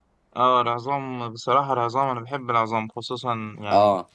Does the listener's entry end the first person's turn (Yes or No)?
No